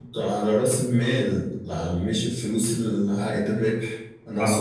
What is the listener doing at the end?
listening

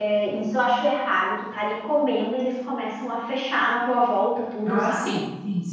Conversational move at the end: taking over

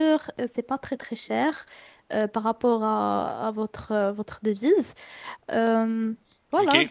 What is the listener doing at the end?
taking over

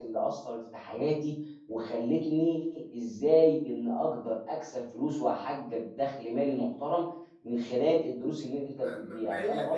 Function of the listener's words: taking over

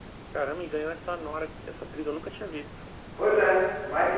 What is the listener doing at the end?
taking over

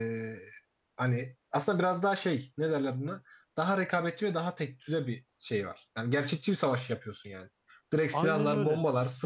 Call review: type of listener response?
listening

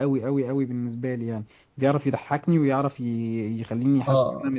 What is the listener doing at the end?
taking over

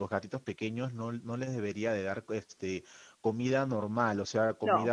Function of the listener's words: listening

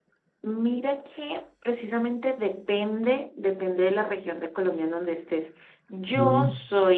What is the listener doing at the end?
listening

